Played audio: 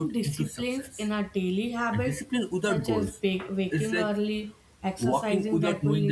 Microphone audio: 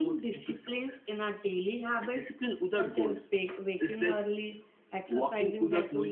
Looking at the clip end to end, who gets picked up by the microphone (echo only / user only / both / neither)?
echo only